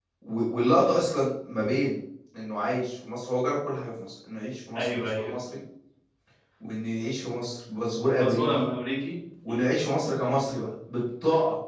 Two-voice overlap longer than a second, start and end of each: none

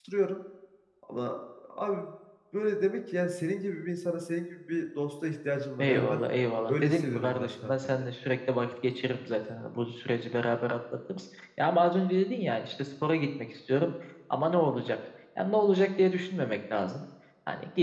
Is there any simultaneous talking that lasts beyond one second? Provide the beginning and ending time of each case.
6.7-8.1

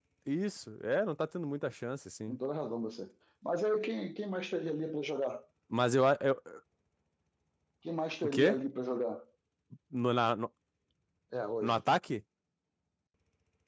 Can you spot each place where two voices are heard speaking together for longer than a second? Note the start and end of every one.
none

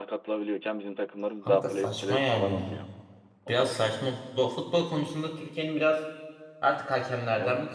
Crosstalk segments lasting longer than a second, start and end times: 1.4-2.8

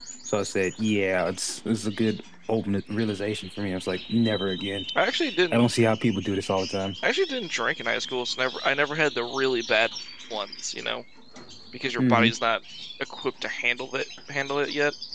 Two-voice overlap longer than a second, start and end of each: none

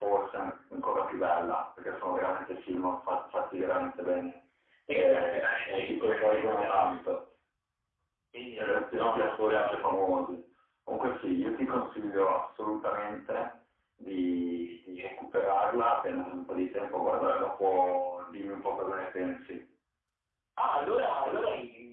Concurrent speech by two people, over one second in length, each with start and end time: 4.9-7.0, 8.6-9.8

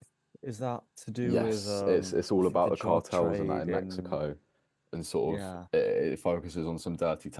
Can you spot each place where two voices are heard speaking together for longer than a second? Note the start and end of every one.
1.2-4.2

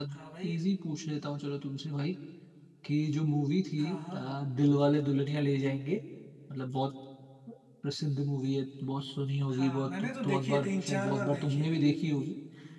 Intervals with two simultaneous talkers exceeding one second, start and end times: 9.5-11.8

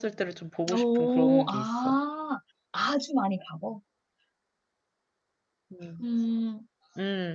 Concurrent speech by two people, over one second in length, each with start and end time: 0.7-2.0

